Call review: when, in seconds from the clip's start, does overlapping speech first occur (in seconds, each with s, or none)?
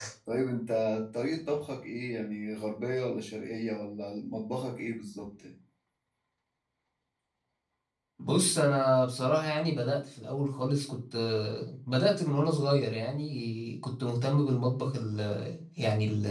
none